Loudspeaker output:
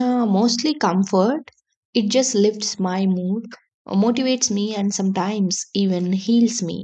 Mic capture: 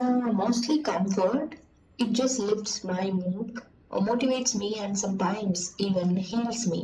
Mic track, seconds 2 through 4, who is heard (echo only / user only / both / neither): echo only